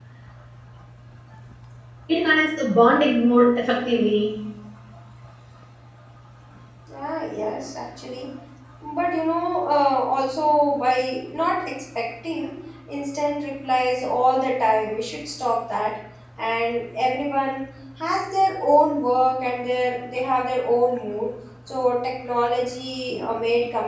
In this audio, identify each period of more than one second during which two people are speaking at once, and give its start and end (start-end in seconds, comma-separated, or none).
none